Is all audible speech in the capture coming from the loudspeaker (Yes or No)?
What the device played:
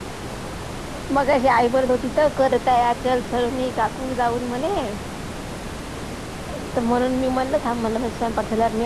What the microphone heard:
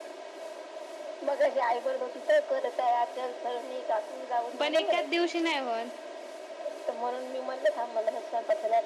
No